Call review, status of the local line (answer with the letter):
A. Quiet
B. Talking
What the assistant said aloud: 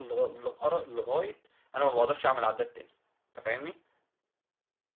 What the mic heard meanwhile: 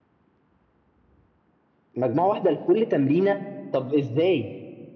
B